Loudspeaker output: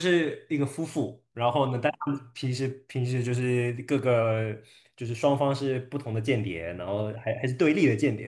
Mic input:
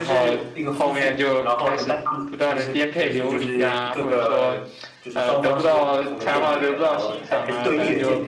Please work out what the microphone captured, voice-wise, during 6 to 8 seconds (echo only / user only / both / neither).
both